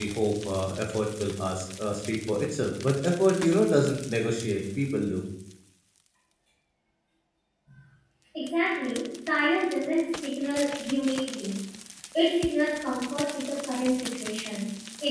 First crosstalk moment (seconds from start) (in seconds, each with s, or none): none